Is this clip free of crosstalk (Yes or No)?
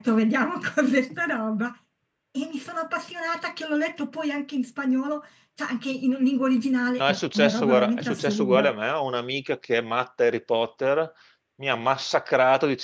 No